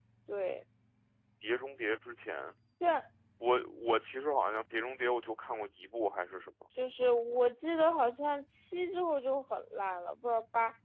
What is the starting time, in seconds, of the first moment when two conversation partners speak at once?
none

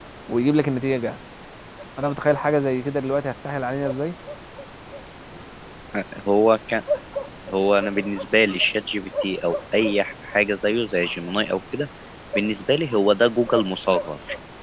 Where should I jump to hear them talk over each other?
none

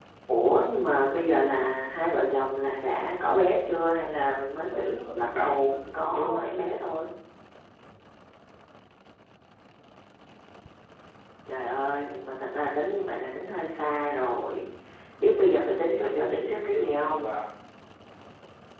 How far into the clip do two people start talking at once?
5 s

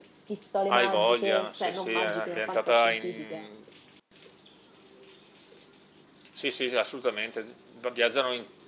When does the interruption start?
1 s

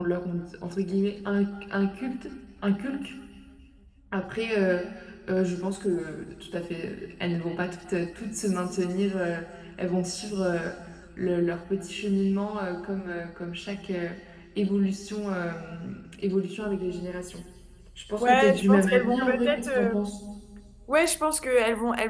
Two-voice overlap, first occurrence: 18 s

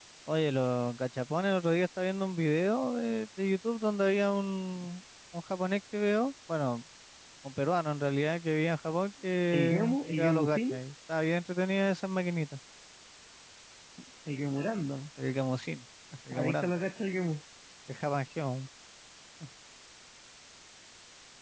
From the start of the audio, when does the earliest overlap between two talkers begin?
10 s

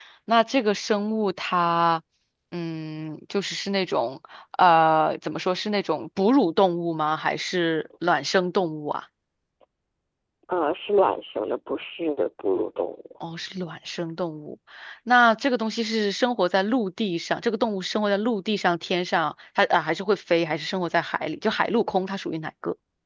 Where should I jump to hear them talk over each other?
none

